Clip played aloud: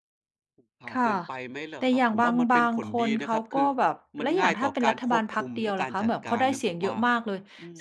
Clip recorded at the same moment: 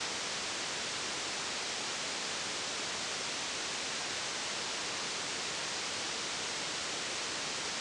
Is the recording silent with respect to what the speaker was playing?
Yes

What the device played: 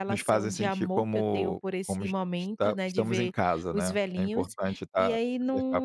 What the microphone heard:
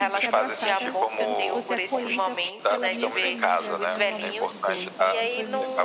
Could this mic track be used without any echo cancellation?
No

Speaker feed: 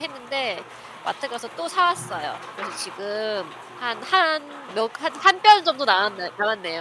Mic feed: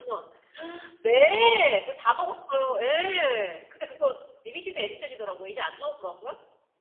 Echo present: No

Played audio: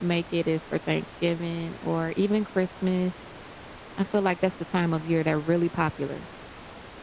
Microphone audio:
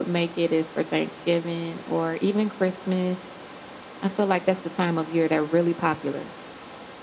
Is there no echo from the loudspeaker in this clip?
No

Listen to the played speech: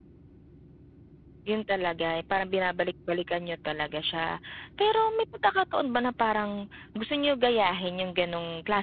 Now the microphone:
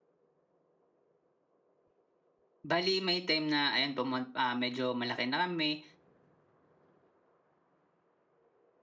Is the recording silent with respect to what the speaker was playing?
Yes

